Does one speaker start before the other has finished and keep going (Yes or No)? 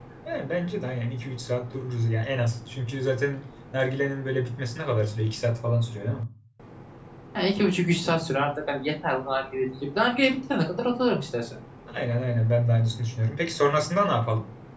No